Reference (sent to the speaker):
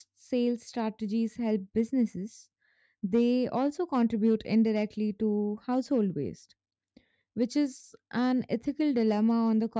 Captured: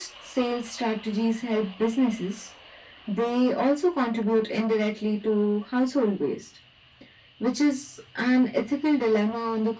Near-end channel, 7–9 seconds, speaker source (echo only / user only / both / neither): echo only